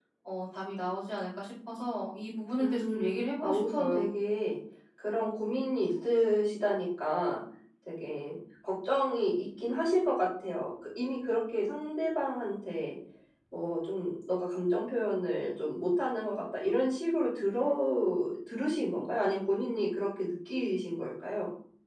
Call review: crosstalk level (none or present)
present